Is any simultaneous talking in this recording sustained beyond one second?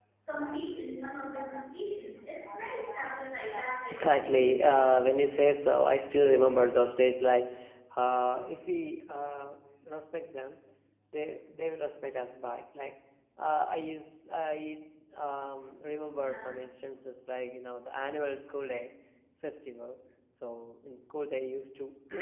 Yes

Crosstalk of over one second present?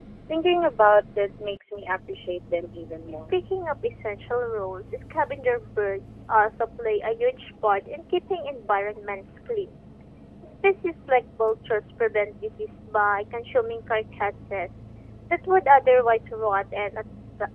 No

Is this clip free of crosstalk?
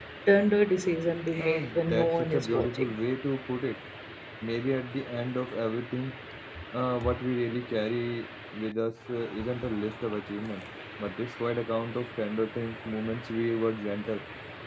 No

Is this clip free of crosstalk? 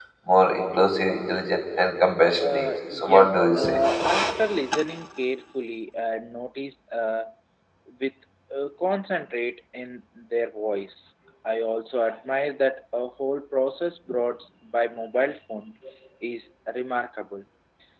No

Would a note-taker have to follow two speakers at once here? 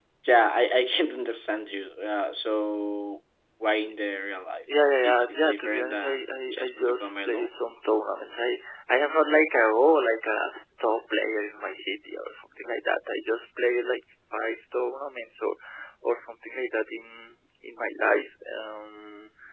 Yes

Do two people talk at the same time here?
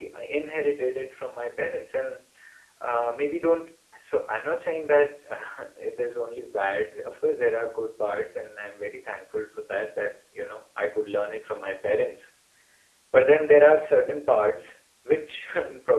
No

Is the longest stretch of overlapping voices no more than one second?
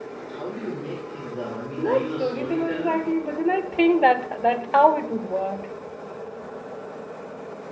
No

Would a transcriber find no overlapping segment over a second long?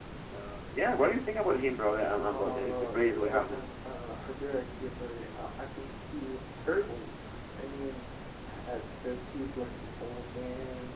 No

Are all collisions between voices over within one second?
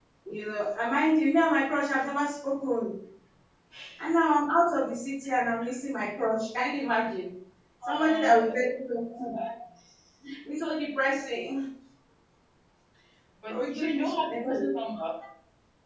No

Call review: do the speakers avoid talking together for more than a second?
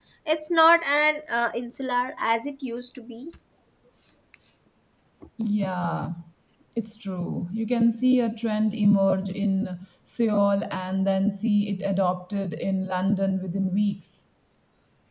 Yes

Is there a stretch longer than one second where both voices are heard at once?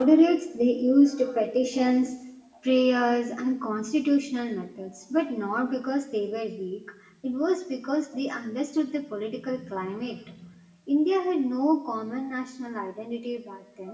No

